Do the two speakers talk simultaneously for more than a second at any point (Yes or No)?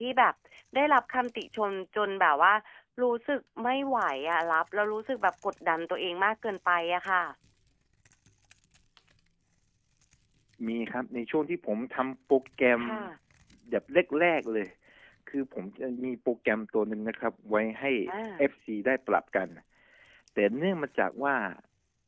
No